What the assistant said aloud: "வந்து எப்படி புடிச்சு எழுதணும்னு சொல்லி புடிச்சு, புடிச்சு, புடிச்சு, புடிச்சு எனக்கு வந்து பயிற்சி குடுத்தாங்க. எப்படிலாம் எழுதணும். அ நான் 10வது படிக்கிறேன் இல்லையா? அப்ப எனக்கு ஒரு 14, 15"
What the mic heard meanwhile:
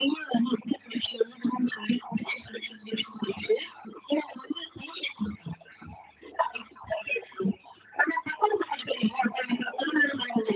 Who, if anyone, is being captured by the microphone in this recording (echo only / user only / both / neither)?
echo only